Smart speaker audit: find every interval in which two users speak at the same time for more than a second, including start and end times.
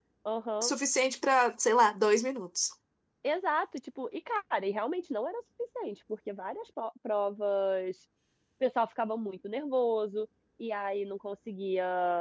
none

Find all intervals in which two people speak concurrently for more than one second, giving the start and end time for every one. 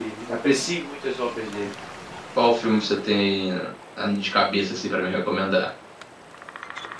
none

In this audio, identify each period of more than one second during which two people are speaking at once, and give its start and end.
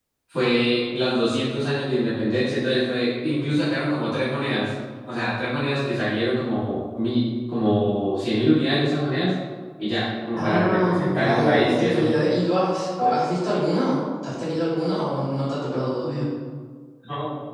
10.3-12.1

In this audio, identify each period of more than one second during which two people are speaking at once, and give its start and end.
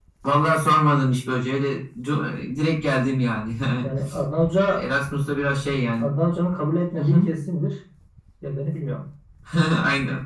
none

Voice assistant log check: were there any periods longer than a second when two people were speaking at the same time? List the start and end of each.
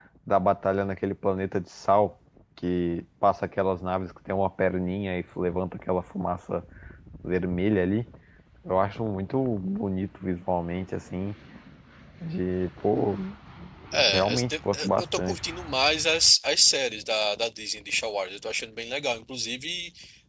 14.1-15.4

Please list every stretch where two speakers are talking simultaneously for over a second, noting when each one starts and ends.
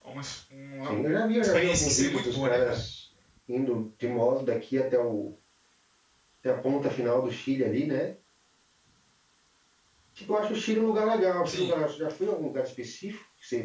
1.4-2.8

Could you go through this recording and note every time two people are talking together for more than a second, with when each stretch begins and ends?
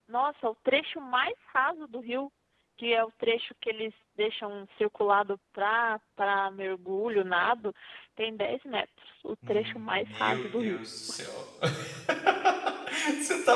9.5-10.8

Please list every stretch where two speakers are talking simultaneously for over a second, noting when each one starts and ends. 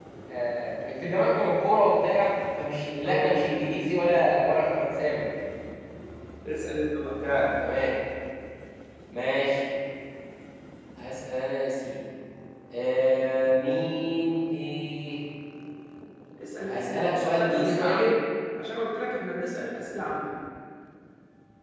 16.7-18.1

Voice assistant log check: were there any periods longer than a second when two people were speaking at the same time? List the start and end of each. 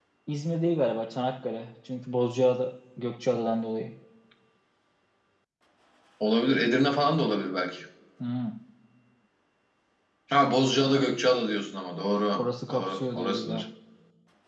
12.4-13.6

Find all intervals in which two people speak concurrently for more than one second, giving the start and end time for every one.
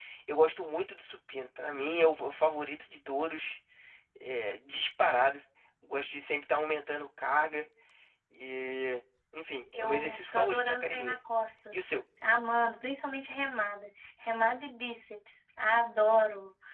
9.7-11.2

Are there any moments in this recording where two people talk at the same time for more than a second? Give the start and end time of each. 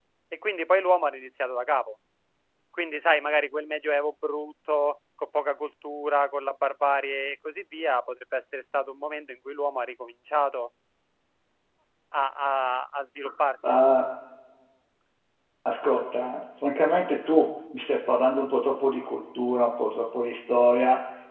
none

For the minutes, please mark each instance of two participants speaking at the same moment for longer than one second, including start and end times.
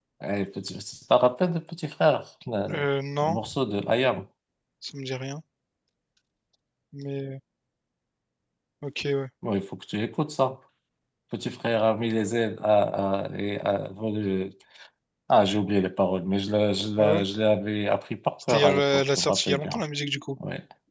18.5-19.8

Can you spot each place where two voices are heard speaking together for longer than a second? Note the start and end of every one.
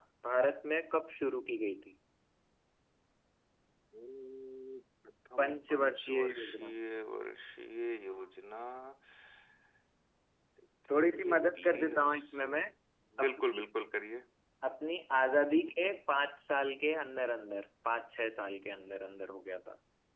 5.4-6.8, 10.9-12.6

